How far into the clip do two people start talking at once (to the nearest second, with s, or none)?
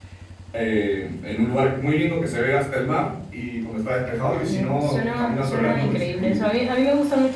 4 s